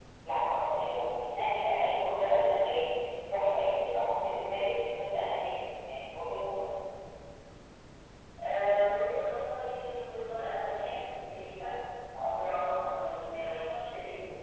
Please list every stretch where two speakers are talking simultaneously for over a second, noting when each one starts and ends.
none

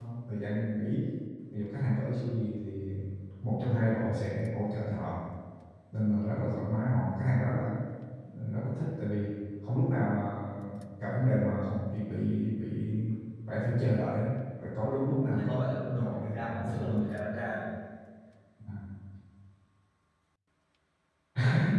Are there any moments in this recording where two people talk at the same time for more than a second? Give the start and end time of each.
15.0-17.1

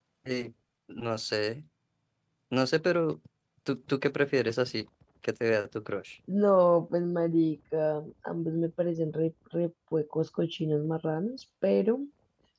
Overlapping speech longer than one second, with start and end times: none

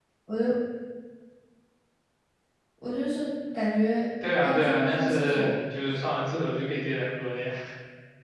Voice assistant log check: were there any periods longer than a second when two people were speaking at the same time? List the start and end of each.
4.4-5.6

